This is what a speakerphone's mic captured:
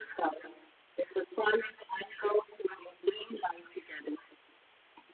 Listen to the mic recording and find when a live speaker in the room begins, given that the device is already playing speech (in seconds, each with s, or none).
none